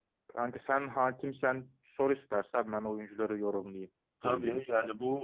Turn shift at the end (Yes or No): Yes